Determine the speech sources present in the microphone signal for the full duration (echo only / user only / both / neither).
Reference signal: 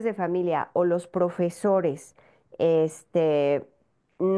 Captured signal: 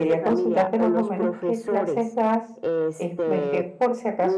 both